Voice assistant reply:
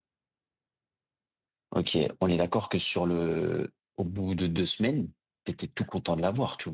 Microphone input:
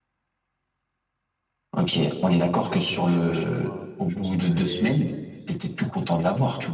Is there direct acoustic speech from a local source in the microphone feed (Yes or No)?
Yes